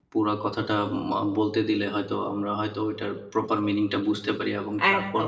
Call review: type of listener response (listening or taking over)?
taking over